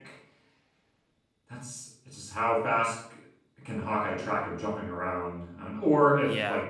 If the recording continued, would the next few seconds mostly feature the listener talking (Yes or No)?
No